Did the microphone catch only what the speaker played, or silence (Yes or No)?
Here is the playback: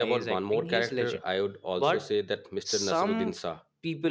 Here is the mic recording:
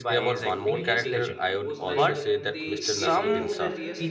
No